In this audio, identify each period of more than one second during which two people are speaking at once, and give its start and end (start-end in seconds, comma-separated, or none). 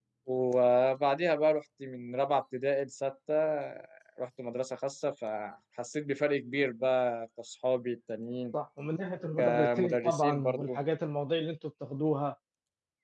9.4-10.7